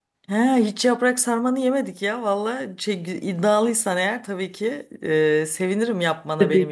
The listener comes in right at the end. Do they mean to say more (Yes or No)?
Yes